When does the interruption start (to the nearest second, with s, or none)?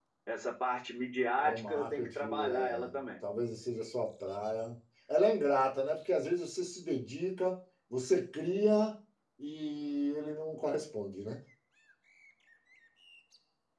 1 s